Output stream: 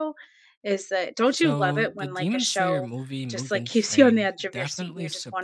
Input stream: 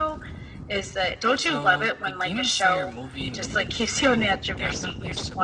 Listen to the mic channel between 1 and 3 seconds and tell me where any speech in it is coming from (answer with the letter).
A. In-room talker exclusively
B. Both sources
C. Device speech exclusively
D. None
C